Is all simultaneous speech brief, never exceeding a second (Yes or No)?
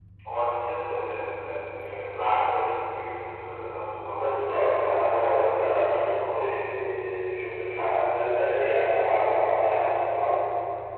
No